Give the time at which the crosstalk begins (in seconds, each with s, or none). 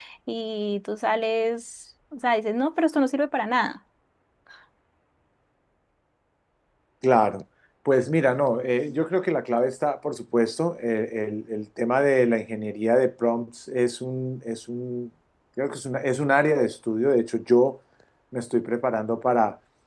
none